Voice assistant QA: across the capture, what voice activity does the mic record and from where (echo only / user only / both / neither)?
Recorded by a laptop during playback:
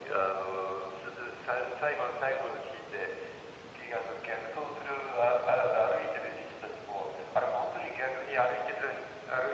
echo only